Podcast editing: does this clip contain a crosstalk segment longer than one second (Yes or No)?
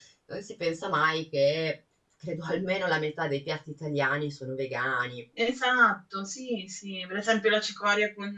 No